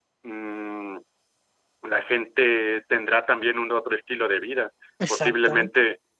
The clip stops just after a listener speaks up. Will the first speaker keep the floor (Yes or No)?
Yes